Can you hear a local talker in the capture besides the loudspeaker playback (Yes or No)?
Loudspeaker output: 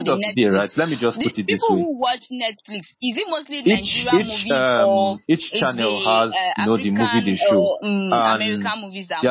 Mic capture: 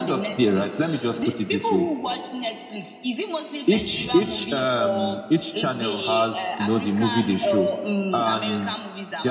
No